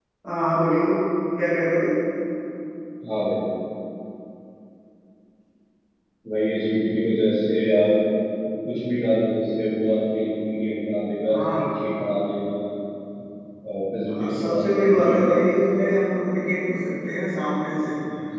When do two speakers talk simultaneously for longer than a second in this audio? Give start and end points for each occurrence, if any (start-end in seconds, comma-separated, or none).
14.1-15.8